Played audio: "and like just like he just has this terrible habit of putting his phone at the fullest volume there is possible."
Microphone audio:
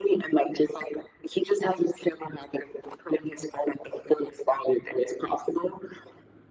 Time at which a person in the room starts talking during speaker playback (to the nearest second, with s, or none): none